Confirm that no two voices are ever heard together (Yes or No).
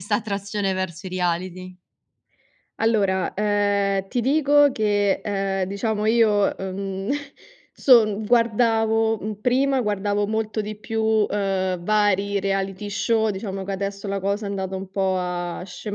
Yes